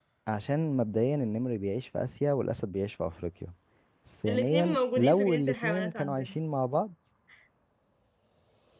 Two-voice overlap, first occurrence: 4 s

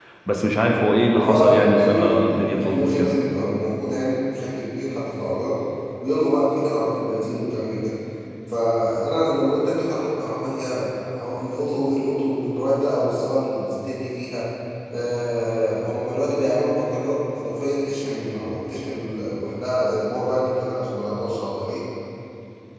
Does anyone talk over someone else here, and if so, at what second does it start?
1 s

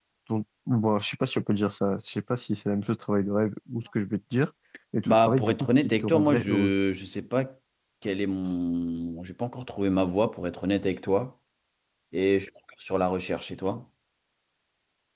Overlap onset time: 5 s

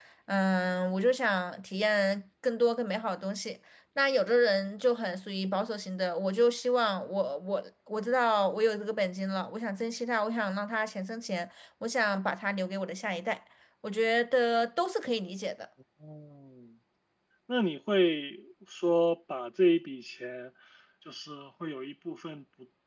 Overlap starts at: none

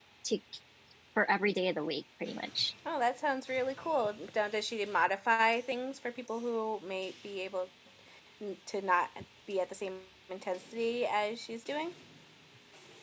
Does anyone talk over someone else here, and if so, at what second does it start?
none

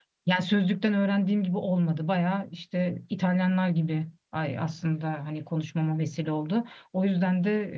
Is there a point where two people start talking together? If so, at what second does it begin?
none

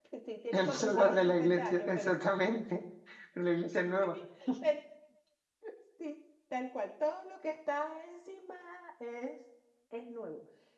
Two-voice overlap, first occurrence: 1 s

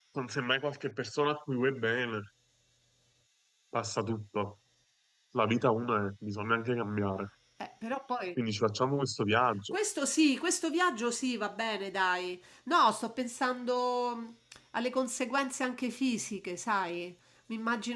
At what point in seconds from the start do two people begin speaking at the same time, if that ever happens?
none

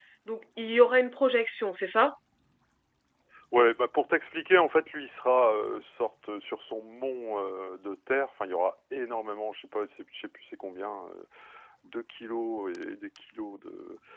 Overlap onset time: none

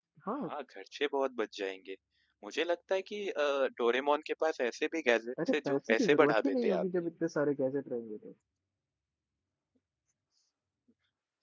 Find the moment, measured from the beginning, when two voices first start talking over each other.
5 s

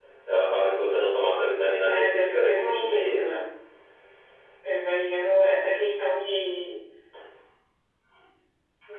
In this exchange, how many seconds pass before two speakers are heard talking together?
2 s

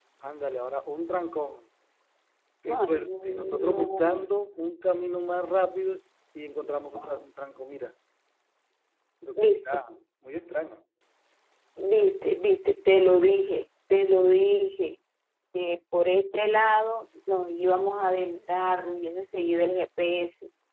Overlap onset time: 3 s

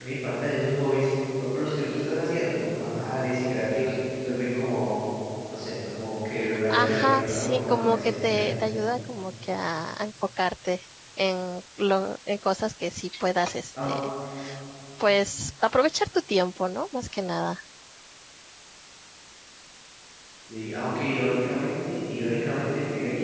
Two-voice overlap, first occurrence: 7 s

